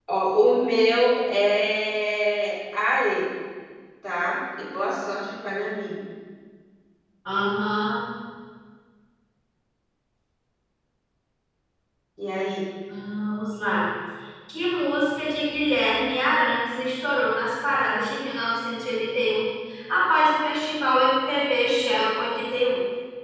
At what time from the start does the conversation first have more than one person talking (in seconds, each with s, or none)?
none